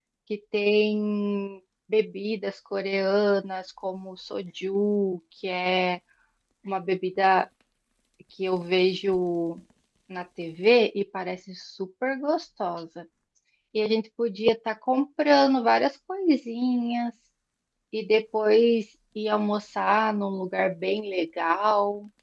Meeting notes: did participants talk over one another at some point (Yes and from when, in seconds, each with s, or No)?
No